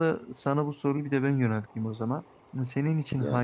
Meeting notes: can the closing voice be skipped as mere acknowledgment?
Yes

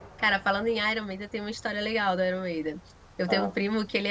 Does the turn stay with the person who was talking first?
Yes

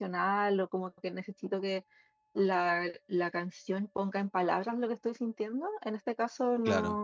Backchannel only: Yes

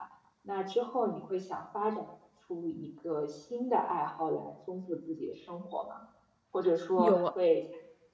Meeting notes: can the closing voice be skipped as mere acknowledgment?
Yes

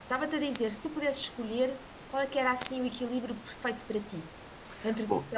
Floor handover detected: Yes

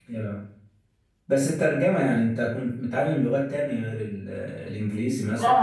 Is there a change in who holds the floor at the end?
Yes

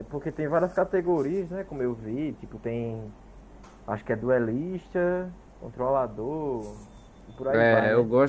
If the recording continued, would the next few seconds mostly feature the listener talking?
Yes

